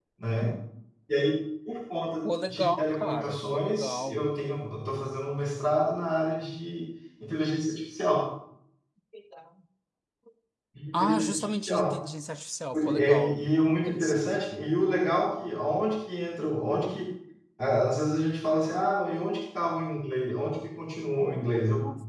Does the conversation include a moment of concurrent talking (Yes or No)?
Yes